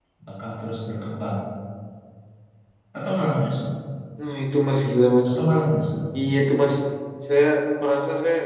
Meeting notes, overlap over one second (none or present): none